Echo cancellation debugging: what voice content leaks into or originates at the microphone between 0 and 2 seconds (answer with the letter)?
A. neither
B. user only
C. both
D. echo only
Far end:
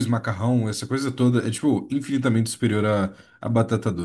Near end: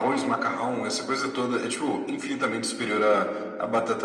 D